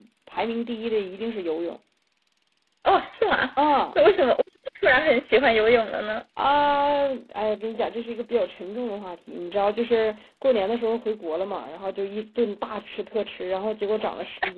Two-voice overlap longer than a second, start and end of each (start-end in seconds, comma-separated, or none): none